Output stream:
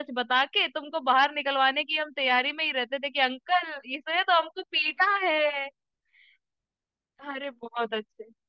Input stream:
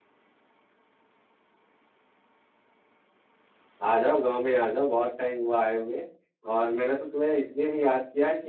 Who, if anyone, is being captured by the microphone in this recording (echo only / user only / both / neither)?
user only